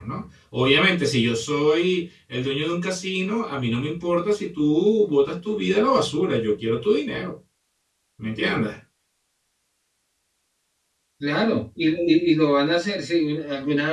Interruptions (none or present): none